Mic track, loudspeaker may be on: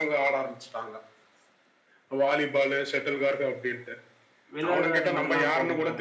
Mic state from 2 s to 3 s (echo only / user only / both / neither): echo only